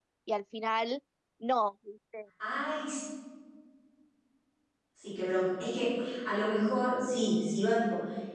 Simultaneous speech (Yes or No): No